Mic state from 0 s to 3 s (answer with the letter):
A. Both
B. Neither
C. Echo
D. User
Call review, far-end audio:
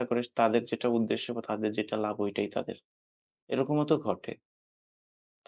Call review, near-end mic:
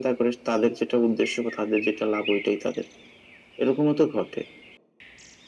C